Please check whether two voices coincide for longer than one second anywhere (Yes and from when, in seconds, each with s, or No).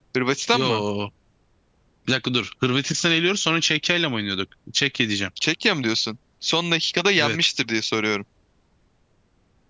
No